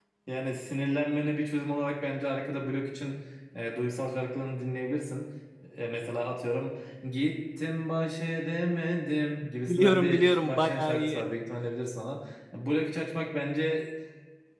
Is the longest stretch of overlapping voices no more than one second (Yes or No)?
No